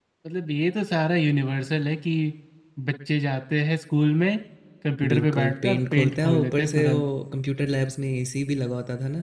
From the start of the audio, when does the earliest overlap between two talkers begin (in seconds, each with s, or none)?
5.1 s